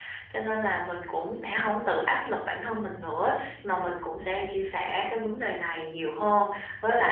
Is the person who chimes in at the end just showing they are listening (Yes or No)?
Yes